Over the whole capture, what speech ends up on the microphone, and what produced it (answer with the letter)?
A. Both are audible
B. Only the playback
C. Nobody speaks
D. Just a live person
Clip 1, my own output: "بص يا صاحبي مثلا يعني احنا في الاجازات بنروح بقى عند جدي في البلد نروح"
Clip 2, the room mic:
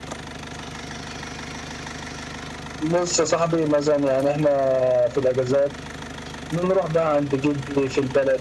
B